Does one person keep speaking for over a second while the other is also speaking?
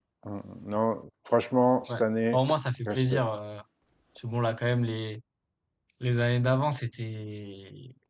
No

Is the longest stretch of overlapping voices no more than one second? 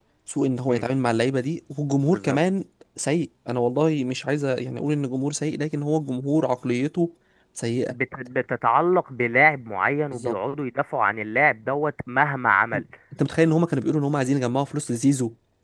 Yes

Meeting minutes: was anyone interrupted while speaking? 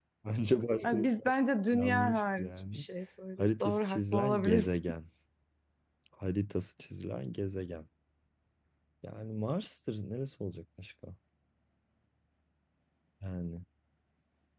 Yes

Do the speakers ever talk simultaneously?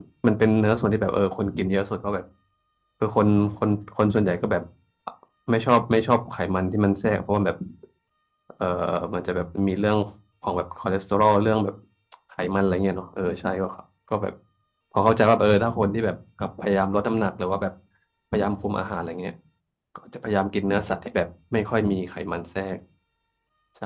No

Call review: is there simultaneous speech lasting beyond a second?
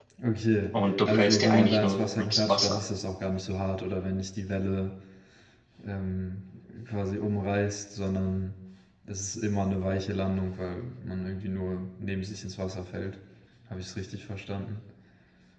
Yes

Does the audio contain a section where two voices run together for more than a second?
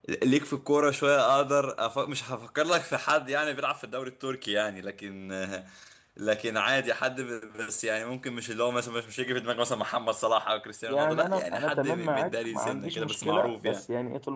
Yes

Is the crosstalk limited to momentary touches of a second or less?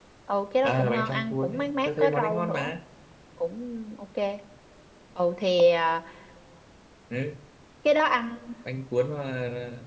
No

